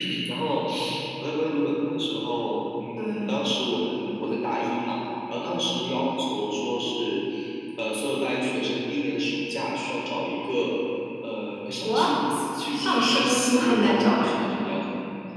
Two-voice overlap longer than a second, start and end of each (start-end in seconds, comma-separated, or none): 12.7-14.5